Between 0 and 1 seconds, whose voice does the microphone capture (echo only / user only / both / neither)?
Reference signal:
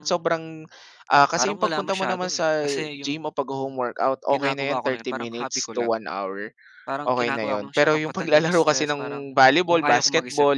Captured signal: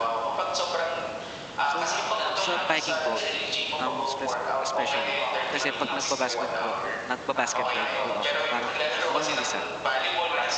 echo only